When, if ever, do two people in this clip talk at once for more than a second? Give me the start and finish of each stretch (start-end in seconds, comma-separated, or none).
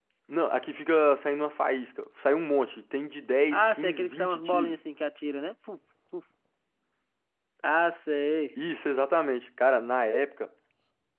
3.5-4.8